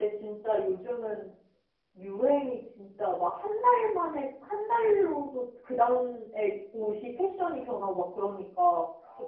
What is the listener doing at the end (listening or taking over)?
listening